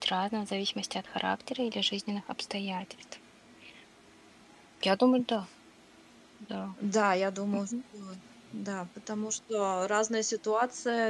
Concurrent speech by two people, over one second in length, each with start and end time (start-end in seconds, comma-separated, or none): none